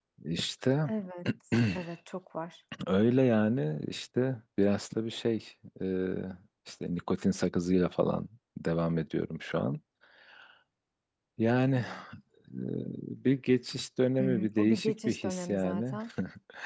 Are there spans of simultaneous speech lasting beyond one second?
Yes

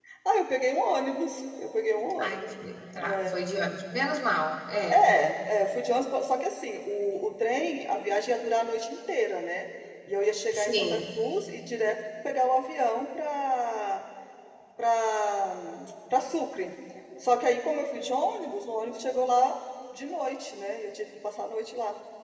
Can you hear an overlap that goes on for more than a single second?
No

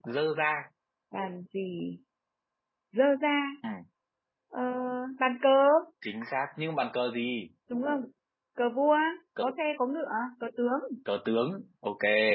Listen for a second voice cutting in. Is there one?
No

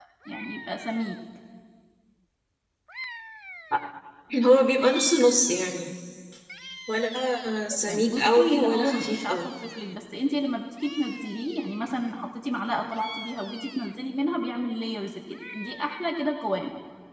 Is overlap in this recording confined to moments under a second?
No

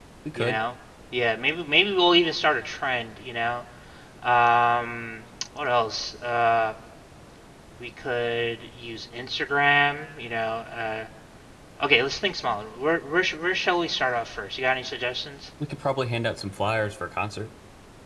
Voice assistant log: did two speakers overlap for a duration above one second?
No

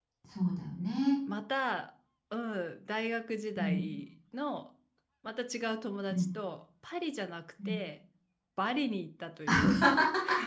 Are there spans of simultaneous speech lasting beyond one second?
No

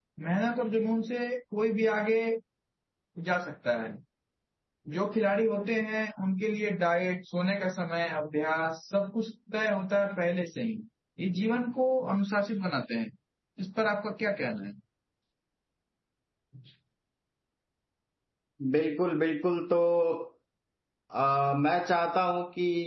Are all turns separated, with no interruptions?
Yes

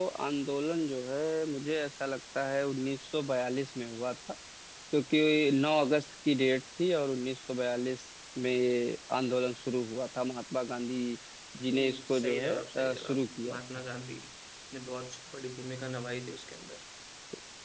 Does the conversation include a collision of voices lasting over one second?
Yes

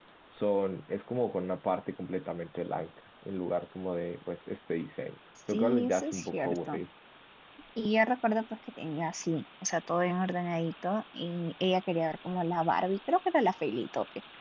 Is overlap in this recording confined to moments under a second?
No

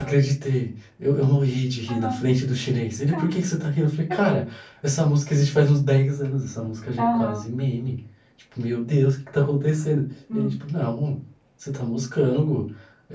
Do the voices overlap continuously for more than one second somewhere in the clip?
No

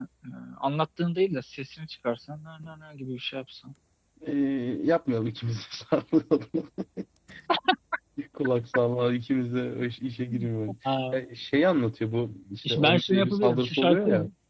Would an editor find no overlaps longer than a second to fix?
No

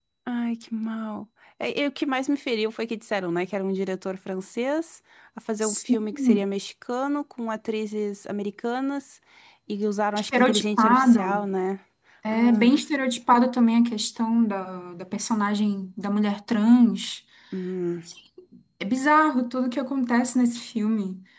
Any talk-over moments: Yes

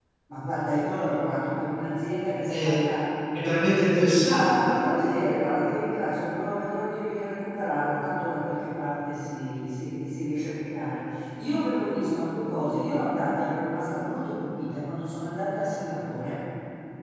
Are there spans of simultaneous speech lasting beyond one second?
No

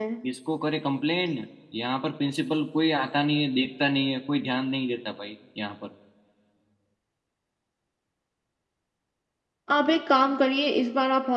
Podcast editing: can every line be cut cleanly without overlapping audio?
Yes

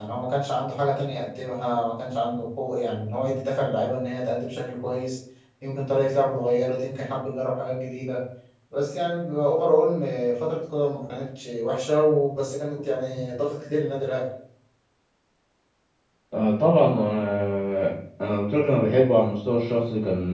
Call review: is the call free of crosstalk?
Yes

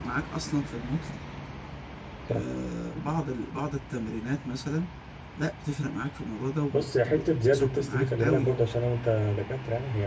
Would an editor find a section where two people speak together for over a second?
Yes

